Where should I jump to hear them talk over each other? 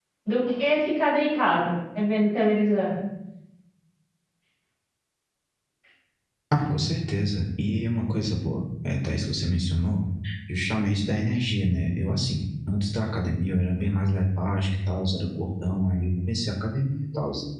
none

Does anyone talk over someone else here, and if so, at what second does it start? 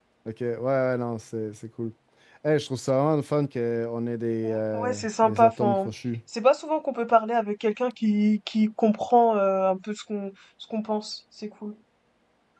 4 s

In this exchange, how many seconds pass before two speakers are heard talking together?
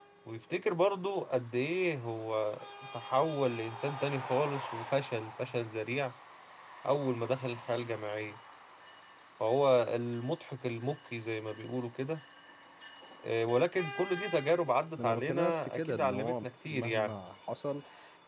15 s

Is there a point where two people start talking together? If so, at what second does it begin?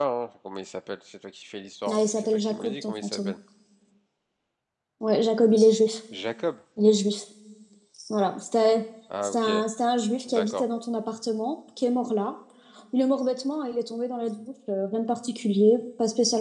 2 s

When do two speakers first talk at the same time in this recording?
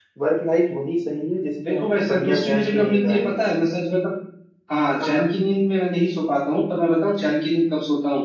2 s

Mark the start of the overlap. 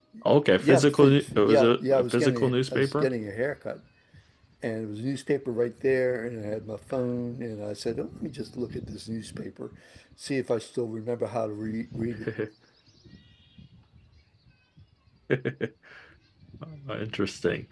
1 s

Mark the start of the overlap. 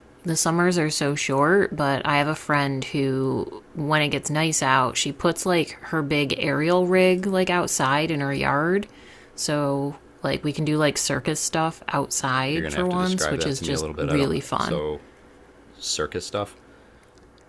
12 s

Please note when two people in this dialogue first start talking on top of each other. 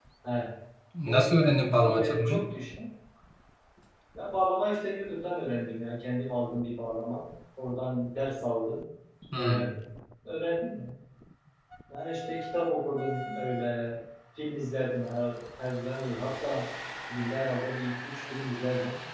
1 s

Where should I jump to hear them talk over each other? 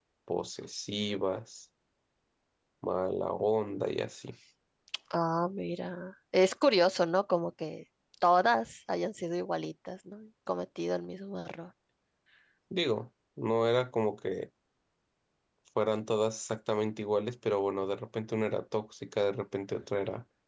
none

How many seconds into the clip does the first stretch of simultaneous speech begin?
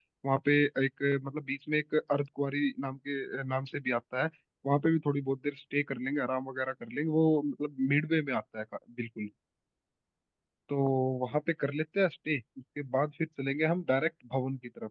none

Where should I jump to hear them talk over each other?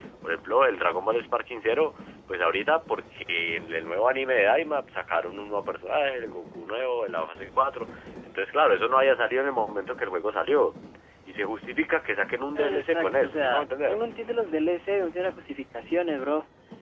13 s

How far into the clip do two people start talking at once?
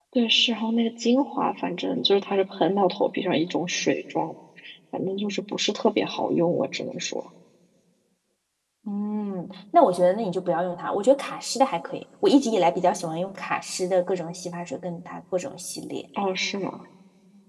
none

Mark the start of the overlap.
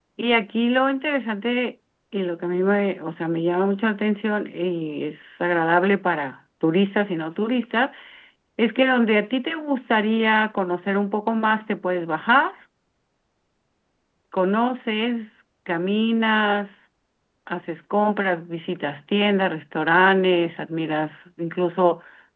none

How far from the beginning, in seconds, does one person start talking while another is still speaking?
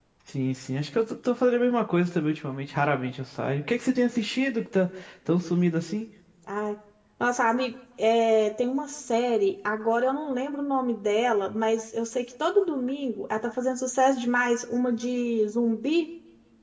none

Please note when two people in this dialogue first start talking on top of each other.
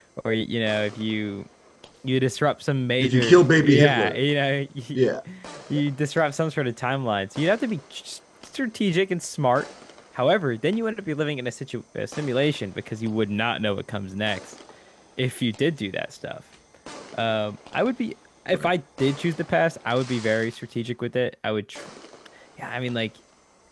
3 s

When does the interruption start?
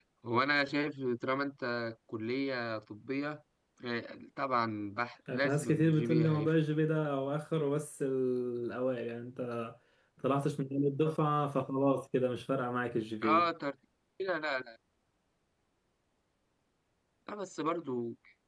5 s

